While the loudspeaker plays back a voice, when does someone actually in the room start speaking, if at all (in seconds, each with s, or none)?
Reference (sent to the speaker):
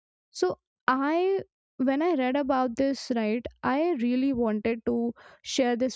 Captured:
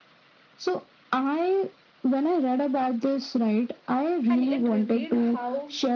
4.3 s